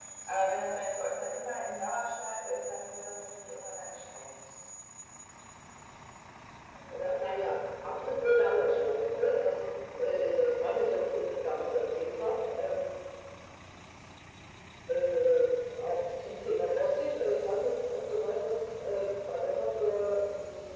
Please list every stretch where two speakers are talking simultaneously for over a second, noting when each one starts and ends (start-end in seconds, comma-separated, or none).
none